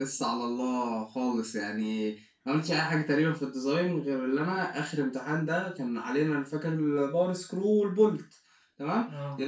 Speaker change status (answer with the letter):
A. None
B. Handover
A